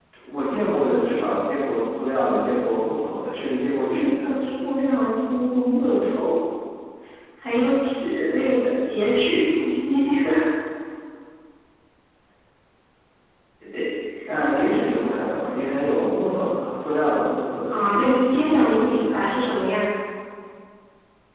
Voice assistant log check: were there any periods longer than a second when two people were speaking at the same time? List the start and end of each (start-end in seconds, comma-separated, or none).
17.7-19.3